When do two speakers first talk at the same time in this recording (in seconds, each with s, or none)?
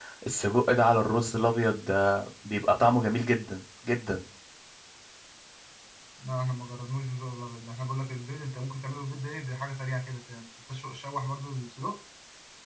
none